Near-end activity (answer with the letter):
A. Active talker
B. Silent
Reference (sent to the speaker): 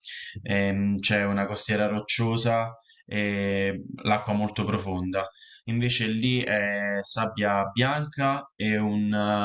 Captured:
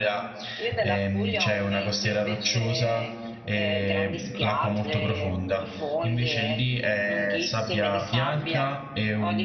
A